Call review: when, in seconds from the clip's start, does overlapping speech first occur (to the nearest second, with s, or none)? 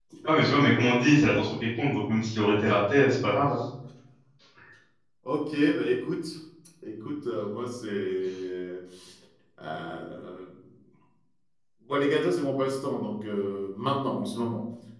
none